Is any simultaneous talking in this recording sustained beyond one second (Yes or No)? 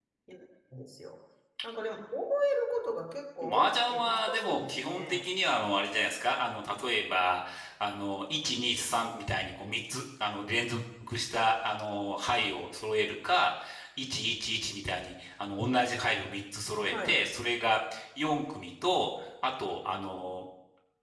Yes